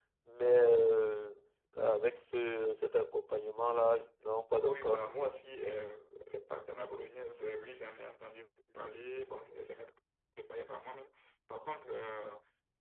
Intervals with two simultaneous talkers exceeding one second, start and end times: none

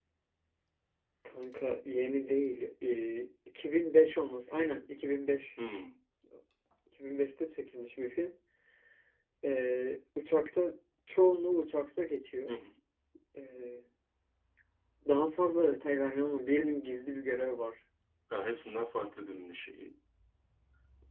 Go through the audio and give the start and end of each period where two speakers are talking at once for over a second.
none

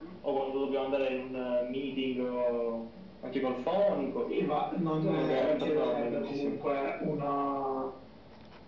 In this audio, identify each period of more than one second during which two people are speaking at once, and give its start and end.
5.0-6.5

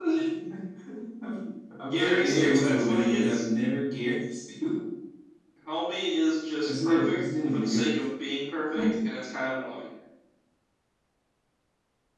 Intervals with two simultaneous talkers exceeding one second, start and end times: 1.9-3.5, 6.6-7.8

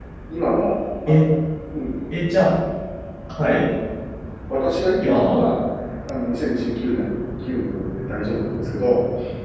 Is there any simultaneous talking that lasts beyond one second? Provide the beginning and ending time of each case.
none

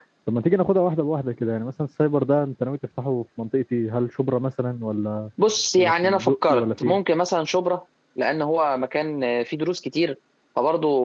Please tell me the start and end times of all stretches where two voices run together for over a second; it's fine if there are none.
5.8-7.0

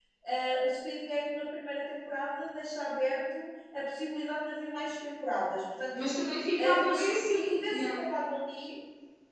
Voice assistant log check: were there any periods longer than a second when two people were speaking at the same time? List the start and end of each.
6.6-8.0

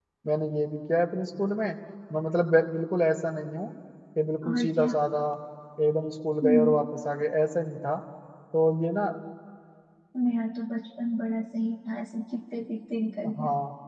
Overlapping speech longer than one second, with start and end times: none

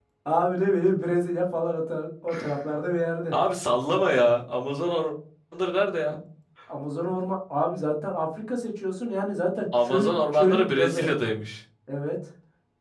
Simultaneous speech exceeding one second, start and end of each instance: 9.8-11.1

